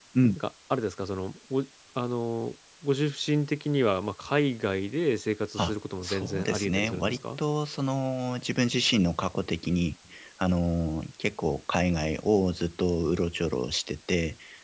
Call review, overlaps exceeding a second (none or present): present